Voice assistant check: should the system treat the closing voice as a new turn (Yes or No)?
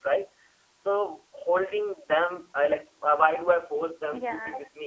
No